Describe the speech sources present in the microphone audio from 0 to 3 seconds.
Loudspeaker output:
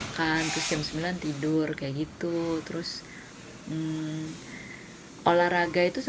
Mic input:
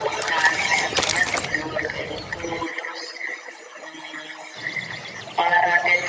echo only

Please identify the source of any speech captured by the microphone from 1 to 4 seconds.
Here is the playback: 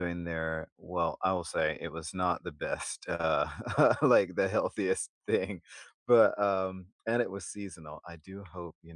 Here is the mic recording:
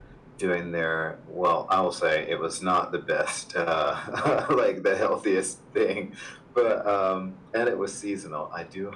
echo only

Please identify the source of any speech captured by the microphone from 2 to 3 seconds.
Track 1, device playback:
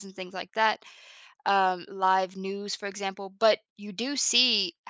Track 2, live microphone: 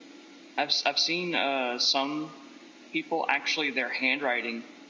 user only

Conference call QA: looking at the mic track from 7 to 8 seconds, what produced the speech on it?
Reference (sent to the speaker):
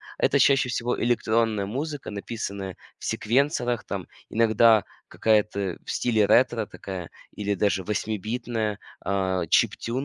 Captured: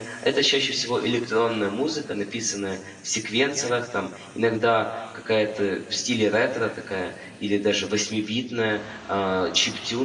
echo only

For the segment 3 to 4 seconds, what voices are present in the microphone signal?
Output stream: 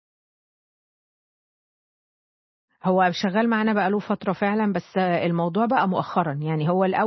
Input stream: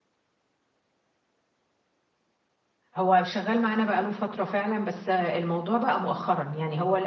echo only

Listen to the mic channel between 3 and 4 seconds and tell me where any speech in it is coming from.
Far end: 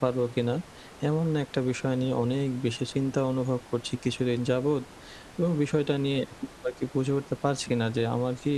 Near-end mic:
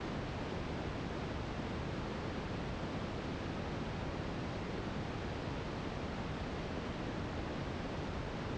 neither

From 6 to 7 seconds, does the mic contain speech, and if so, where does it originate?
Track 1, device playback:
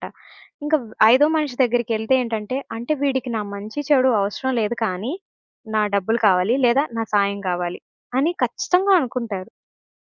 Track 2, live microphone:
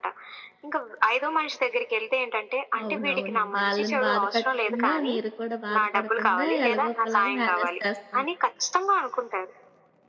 both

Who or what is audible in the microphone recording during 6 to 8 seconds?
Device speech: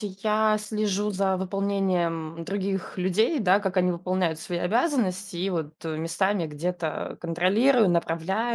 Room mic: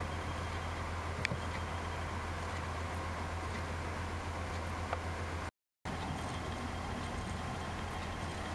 neither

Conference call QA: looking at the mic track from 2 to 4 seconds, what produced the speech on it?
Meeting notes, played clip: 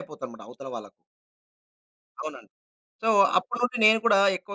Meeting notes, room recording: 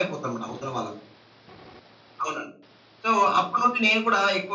echo only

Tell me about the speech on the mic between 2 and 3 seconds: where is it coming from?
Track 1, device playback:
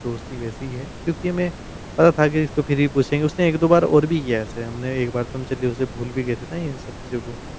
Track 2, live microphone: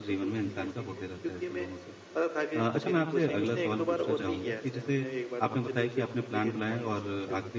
both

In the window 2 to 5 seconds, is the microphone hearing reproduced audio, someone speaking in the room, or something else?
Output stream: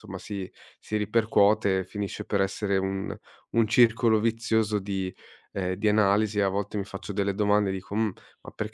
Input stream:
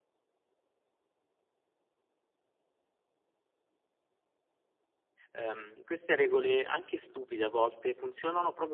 neither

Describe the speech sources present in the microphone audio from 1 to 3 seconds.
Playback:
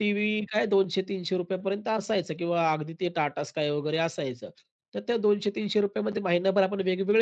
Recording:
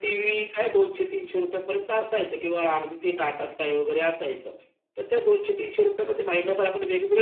echo only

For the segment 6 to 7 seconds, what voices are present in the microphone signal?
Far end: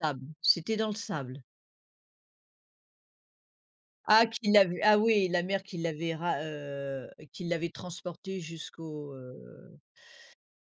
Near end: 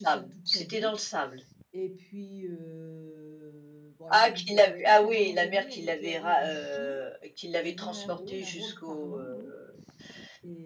both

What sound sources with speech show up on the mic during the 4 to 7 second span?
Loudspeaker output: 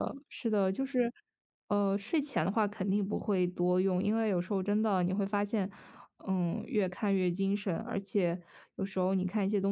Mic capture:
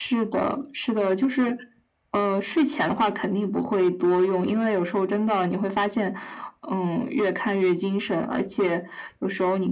echo only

